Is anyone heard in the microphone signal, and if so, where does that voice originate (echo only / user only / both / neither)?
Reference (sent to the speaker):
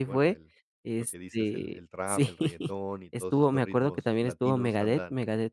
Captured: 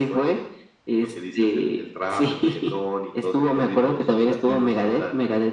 echo only